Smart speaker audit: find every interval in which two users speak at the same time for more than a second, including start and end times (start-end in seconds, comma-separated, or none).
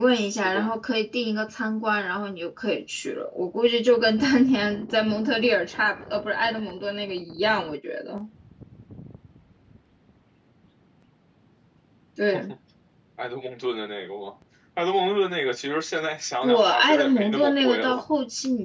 16.4-18.0